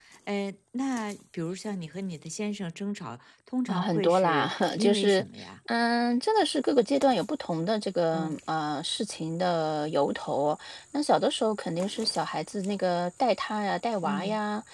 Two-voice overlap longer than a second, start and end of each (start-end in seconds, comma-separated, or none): 3.7-5.2